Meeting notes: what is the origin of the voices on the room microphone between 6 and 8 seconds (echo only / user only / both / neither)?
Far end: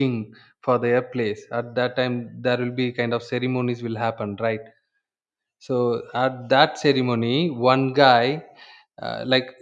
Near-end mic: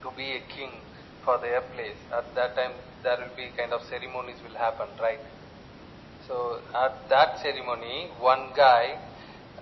echo only